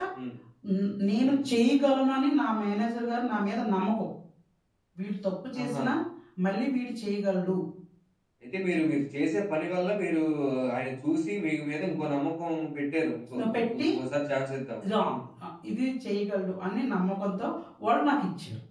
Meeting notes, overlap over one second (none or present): none